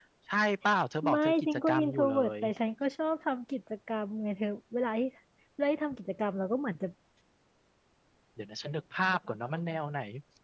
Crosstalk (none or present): present